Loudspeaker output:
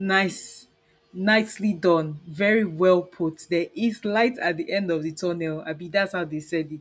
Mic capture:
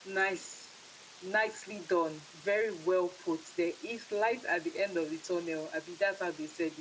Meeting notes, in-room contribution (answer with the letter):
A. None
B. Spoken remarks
A